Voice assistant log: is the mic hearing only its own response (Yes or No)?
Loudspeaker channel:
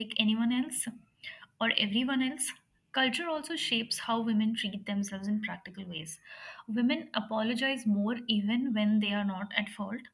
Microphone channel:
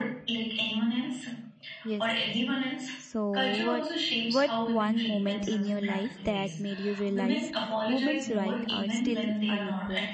No